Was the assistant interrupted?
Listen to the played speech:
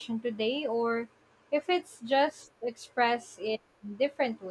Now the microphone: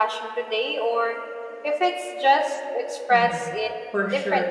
Yes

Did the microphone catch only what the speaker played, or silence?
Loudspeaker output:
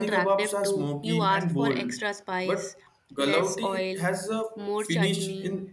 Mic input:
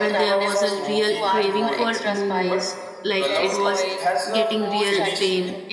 No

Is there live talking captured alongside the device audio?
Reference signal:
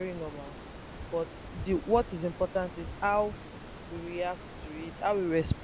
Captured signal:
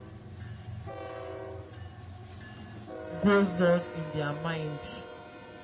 Yes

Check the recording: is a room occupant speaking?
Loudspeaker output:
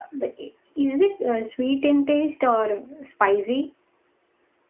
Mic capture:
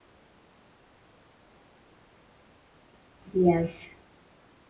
Yes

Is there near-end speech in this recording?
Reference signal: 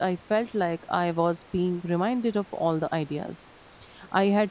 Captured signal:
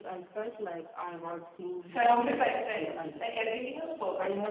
Yes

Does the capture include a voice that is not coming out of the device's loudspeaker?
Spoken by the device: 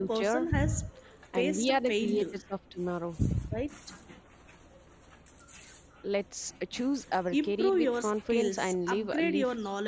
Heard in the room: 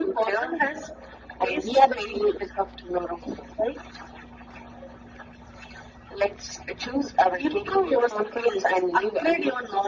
No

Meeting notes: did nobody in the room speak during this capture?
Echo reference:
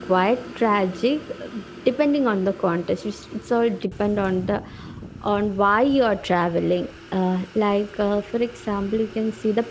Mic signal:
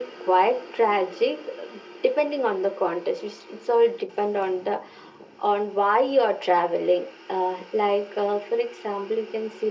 Yes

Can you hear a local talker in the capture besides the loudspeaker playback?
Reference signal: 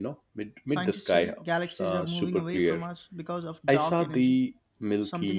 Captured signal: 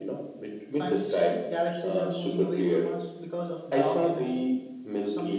No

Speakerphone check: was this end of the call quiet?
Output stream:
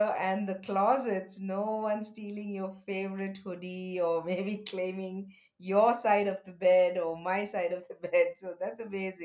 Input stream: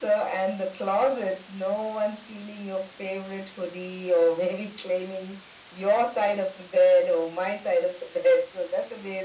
Yes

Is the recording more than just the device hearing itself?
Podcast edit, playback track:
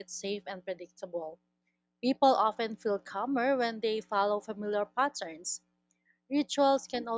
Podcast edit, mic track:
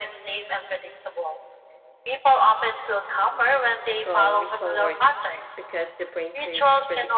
Yes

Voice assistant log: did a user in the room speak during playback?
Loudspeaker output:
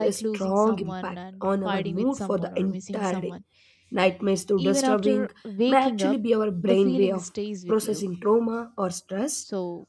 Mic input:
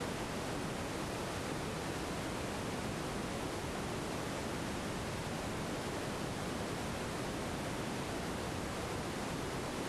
No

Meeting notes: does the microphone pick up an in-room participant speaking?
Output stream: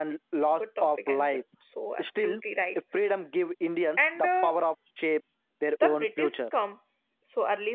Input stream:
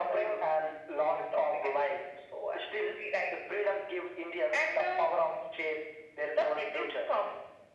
No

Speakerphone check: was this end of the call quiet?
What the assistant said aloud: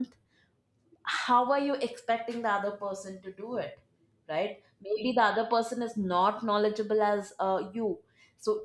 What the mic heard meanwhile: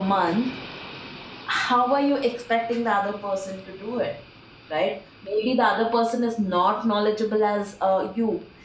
Yes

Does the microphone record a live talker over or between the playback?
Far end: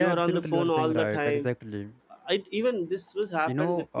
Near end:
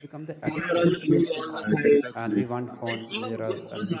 Yes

